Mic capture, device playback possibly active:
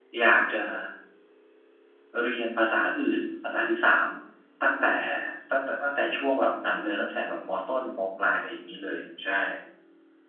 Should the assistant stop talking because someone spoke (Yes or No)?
Yes